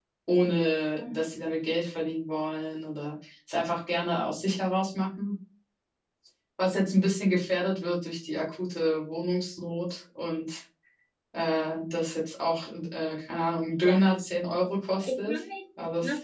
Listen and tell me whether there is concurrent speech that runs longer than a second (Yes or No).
No